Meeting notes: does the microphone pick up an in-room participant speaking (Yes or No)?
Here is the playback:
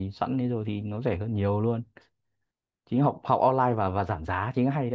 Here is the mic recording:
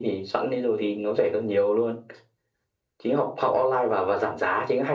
No